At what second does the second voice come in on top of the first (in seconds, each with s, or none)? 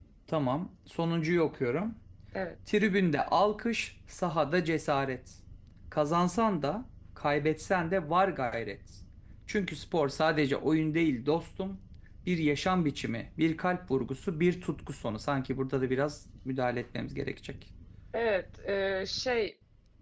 none